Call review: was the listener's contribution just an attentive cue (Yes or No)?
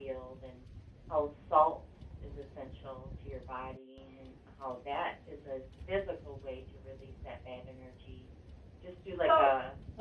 No